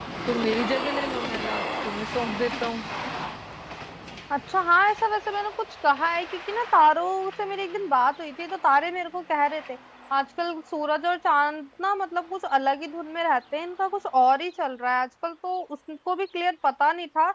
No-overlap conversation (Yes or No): Yes